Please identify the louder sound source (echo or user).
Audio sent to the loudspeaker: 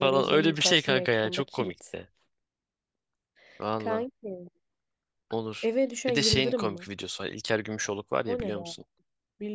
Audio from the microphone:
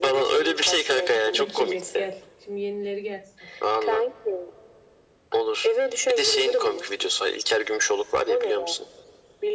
echo